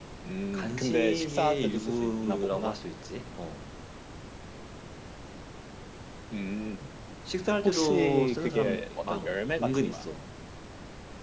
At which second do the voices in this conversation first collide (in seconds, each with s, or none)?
0.5 s